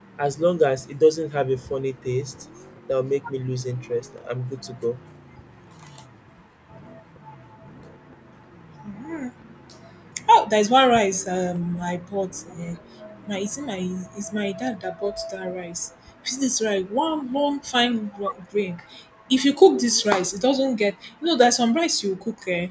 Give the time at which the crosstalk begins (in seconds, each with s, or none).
none